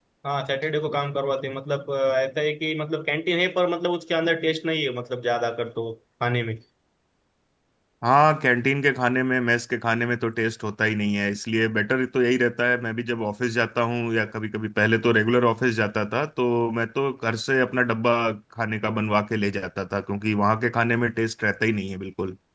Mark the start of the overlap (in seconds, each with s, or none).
none